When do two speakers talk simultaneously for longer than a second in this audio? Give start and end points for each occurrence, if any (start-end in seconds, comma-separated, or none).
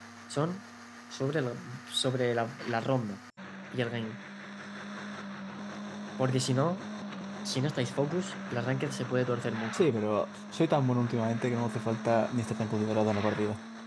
none